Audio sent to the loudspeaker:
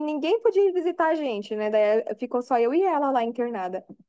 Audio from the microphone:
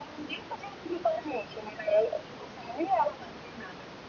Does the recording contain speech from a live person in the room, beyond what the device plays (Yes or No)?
No